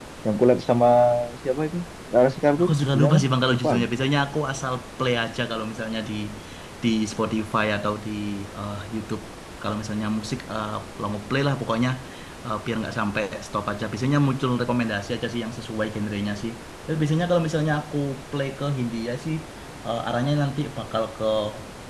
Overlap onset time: 2.6 s

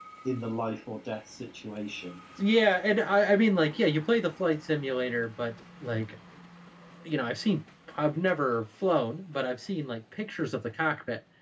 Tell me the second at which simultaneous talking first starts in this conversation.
none

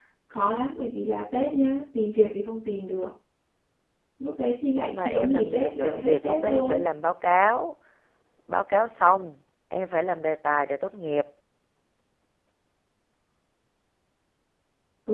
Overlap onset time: 4.8 s

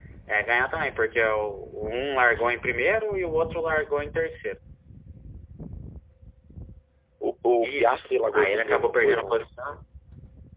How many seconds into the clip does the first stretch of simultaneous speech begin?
7.6 s

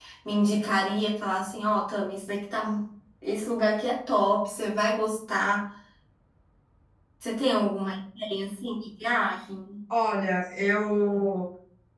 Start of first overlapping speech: none

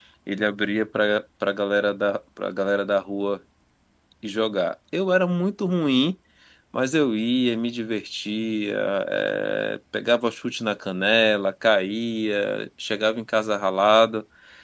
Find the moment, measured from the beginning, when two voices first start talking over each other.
none

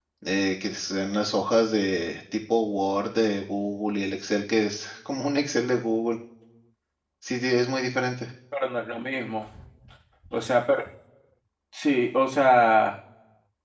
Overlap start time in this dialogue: none

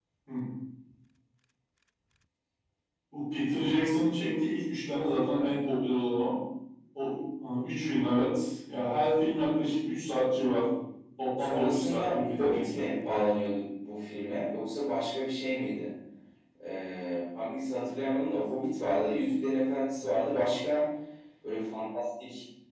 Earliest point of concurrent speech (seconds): 11.4 s

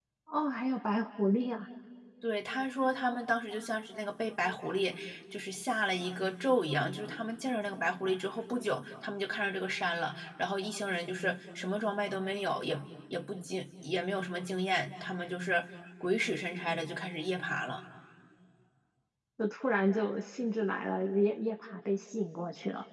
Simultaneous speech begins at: none

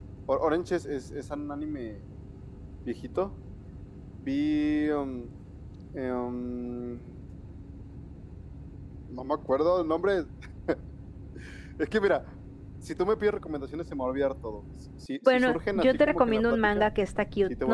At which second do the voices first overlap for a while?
15.3 s

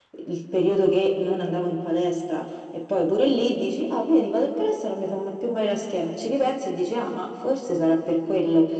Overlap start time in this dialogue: none

